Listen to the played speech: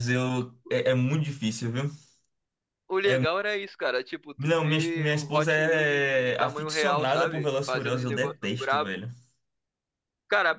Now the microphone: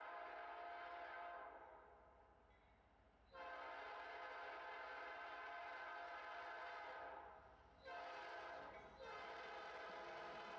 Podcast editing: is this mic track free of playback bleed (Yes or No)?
Yes